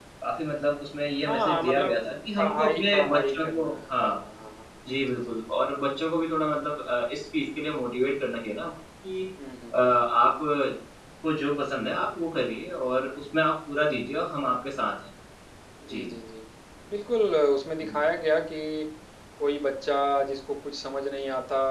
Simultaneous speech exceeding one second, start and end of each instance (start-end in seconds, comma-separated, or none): 1.2-4.2